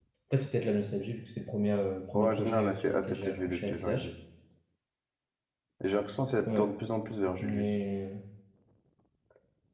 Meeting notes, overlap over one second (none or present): present